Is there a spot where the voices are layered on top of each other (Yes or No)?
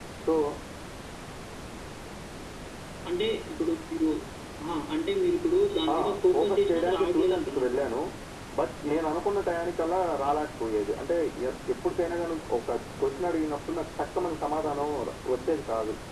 Yes